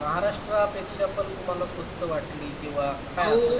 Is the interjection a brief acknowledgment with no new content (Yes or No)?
No